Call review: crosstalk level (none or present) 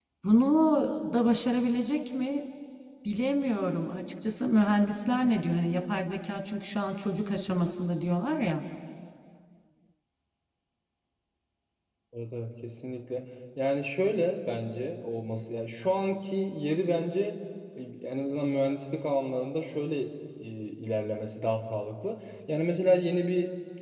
none